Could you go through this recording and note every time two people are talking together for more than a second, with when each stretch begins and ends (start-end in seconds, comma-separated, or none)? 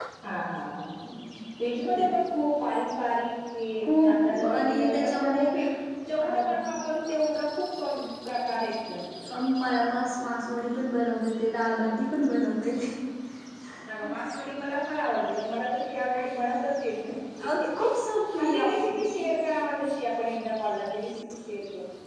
4.0-5.5